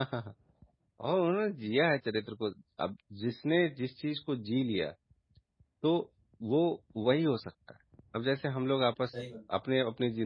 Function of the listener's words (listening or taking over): listening